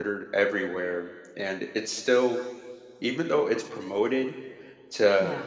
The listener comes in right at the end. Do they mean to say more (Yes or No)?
No